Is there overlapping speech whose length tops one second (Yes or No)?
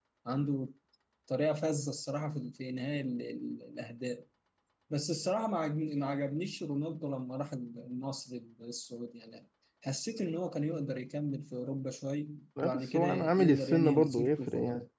Yes